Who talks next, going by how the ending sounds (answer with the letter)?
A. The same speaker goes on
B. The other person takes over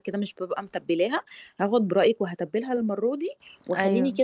A